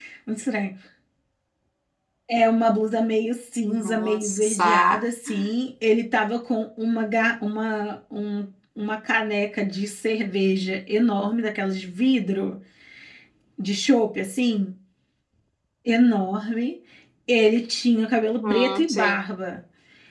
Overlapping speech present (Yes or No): Yes